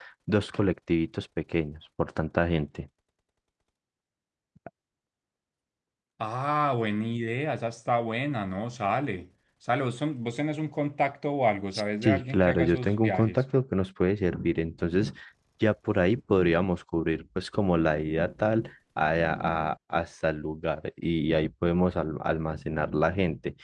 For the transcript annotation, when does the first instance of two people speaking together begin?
12.0 s

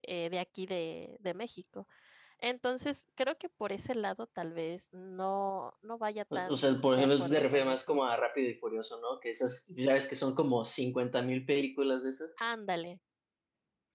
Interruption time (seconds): 6.3 s

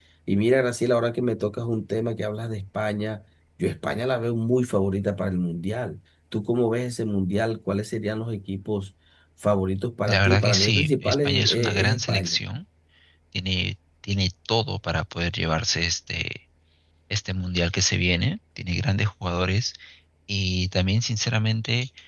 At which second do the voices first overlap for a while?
10.0 s

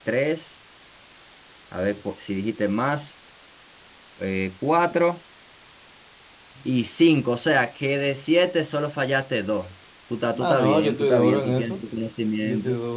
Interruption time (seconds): 10.4 s

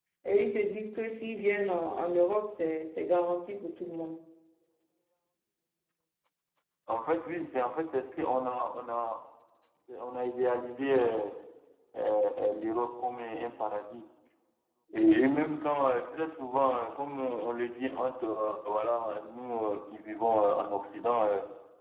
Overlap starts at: none

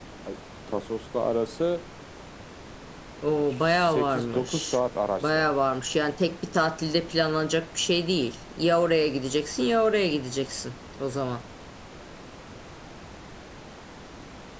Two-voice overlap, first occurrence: 3.3 s

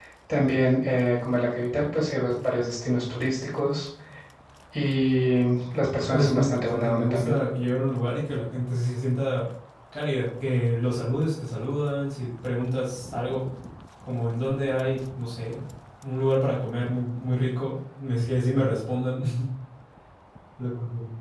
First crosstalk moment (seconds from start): 6.1 s

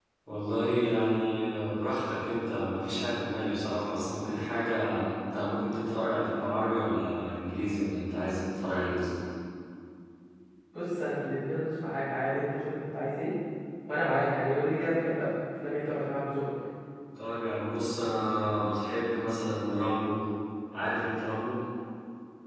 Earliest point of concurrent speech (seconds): none

